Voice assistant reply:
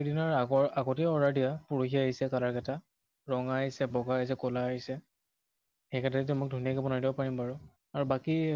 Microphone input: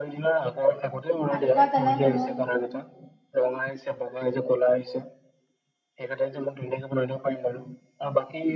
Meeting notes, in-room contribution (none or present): present